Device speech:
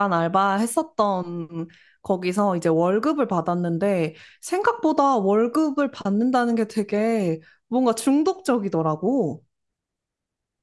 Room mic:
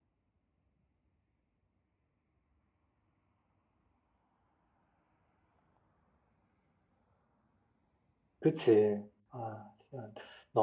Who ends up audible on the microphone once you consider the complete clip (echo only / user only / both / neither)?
user only